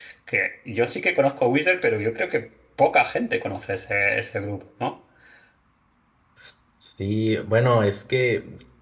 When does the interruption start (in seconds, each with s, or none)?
none